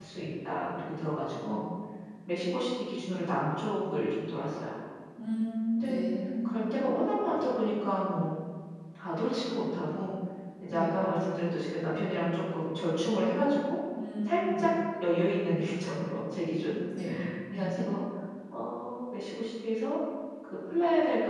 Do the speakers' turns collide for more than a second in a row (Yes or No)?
No